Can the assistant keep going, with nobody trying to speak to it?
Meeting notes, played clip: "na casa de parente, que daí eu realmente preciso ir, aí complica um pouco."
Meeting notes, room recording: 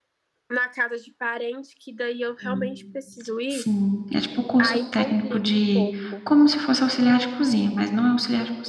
No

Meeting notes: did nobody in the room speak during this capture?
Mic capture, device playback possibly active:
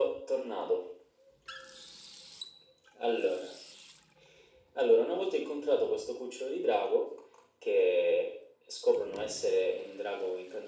Yes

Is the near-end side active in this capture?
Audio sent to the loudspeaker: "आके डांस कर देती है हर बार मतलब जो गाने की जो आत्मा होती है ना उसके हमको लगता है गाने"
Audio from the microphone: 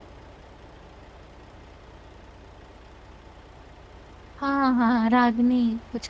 Yes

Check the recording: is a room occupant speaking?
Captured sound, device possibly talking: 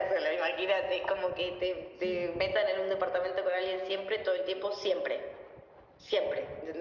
Yes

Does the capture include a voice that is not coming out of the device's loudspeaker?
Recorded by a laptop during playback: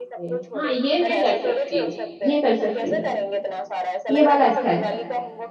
Yes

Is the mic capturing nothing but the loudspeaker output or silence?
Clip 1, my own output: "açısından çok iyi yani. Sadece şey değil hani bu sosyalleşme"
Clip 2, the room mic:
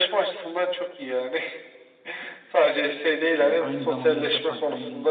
No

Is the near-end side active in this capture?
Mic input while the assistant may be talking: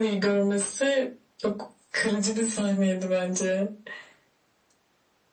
No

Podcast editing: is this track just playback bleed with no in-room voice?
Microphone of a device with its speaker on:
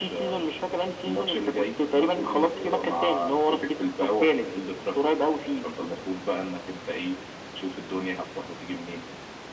Yes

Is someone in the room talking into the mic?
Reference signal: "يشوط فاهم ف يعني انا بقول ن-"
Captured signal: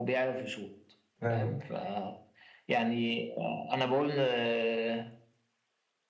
Yes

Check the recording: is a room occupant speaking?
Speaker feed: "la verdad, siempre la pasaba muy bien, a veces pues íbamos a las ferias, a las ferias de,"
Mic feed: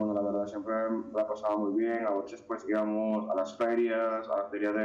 No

